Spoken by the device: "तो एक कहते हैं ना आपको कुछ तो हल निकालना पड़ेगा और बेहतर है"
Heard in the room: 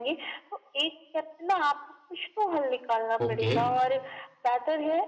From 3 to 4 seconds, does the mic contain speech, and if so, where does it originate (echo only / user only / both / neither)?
both